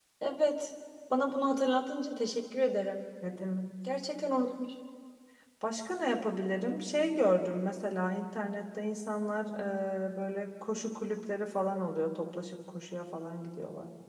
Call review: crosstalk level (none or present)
none